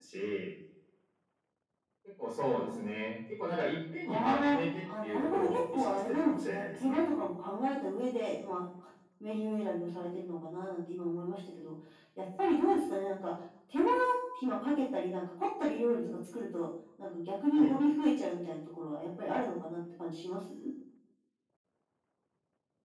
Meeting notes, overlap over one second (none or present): present